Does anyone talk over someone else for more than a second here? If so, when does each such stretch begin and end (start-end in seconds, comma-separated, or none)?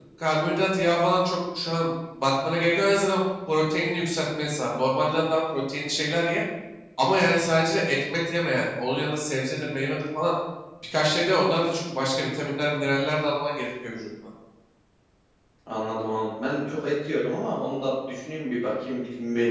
none